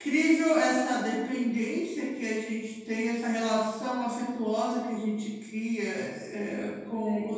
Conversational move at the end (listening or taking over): listening